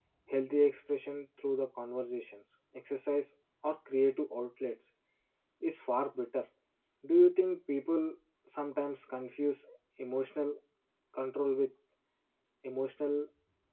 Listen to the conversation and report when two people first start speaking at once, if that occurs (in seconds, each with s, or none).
none